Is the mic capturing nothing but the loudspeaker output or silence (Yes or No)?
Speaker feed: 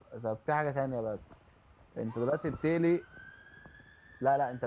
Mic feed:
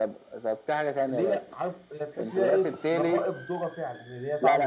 No